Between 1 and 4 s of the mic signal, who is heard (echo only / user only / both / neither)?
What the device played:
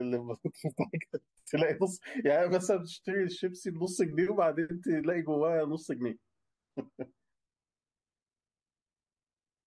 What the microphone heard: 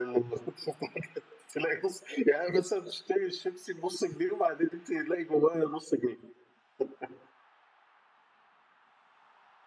echo only